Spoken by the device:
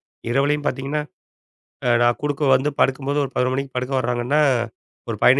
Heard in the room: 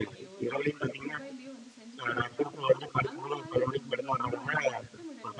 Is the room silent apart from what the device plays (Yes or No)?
No